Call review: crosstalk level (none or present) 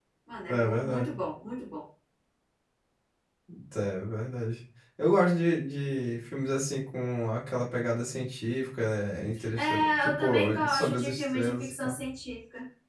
present